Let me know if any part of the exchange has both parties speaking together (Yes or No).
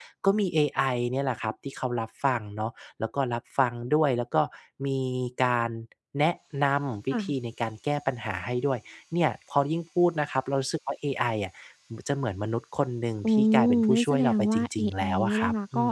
Yes